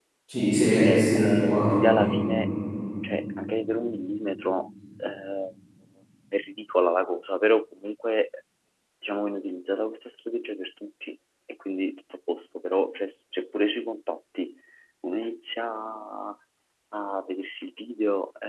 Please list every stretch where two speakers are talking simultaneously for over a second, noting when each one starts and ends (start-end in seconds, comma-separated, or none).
0.9-2.1